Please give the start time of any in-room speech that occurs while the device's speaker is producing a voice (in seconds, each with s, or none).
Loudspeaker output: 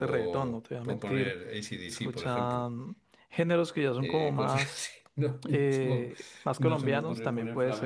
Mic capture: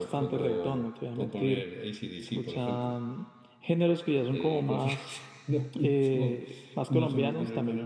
none